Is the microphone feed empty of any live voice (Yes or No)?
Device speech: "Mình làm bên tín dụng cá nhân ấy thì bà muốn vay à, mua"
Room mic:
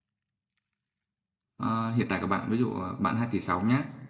No